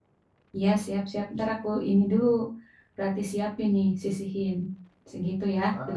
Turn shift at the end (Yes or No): Yes